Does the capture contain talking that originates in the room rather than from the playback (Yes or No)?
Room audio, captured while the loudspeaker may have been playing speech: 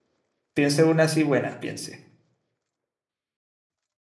Yes